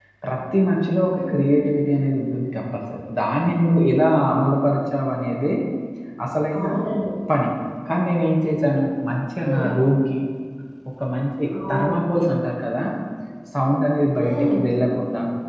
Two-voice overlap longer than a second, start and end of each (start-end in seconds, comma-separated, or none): none